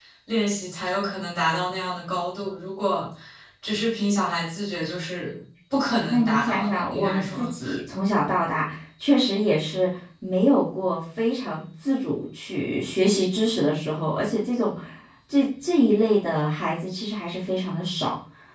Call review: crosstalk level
present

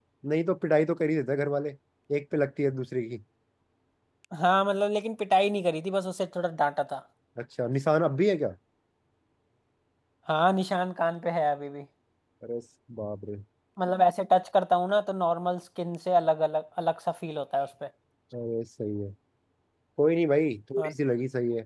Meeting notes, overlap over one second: none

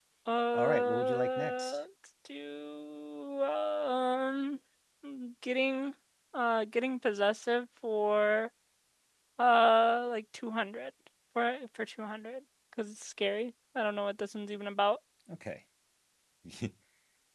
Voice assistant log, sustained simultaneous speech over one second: present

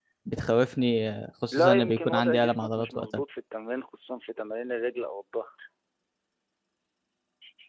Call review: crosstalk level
present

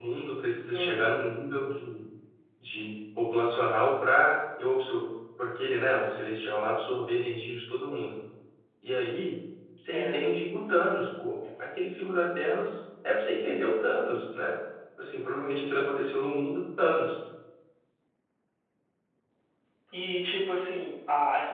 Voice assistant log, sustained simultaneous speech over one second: none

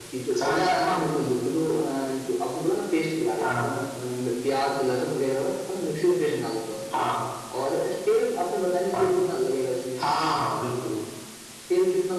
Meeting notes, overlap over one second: none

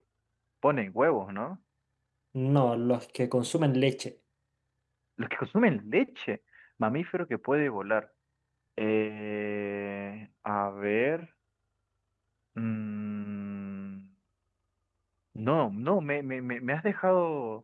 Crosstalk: none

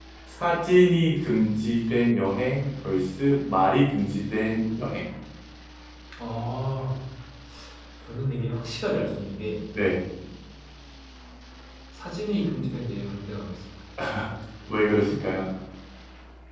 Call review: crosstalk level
none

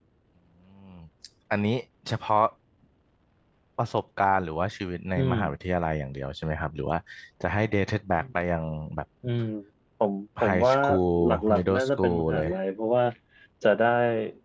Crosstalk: present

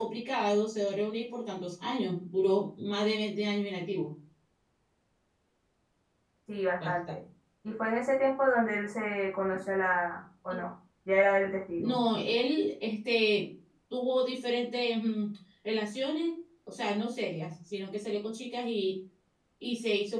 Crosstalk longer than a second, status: none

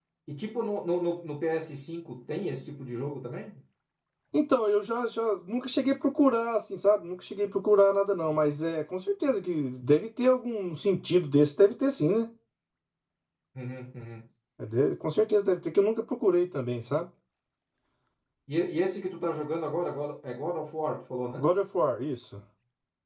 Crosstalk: none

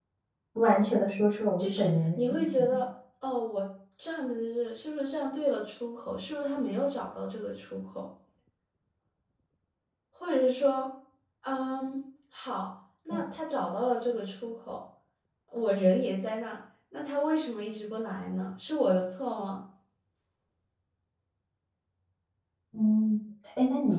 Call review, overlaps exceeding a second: present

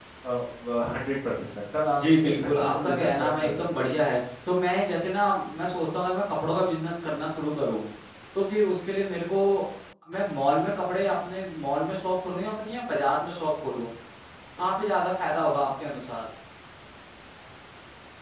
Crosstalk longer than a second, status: present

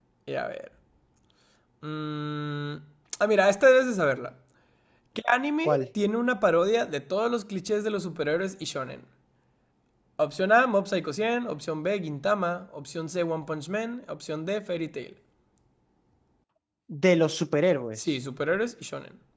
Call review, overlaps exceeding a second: none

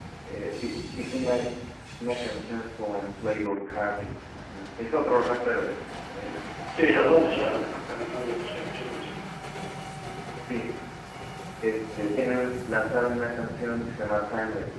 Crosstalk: present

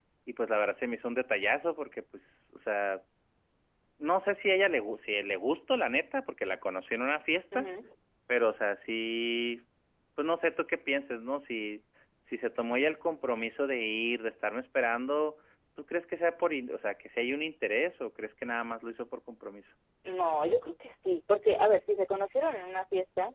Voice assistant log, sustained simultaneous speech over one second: none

